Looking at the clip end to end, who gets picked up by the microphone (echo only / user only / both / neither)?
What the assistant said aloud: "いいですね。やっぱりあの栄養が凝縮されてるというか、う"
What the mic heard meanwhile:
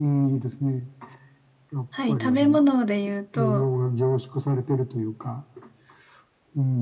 both